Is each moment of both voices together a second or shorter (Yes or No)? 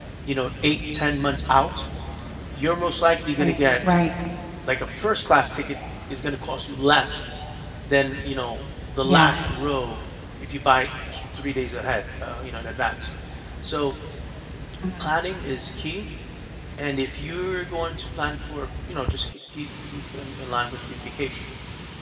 Yes